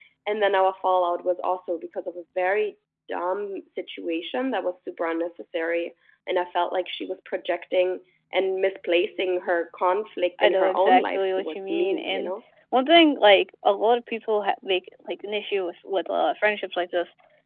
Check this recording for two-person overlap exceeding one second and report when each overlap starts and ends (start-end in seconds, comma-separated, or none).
10.4-12.3